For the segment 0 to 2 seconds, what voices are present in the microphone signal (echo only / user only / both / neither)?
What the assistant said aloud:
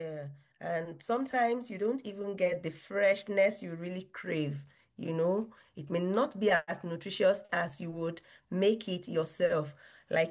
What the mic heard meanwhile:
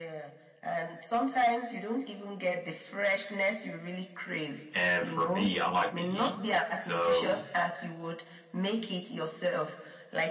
echo only